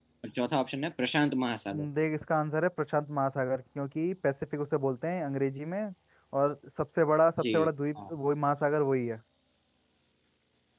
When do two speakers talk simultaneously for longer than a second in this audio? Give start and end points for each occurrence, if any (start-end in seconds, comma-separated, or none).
none